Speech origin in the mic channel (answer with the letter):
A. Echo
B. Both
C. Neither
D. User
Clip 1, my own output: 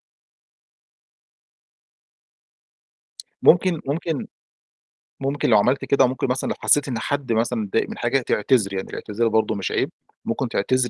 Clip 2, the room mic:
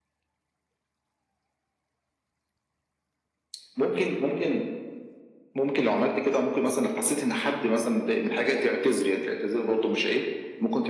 A